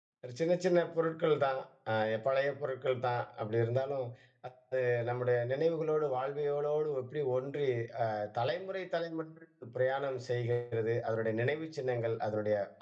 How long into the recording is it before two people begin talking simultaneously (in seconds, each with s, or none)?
none